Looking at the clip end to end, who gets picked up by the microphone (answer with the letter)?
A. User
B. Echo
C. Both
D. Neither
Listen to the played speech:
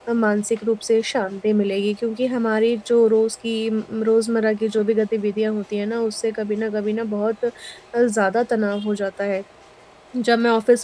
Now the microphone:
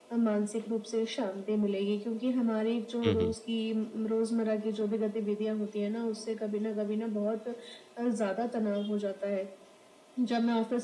C